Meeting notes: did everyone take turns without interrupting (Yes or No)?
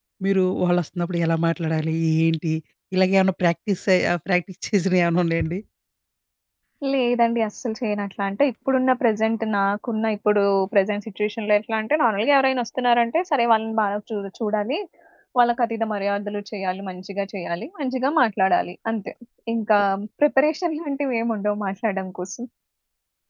Yes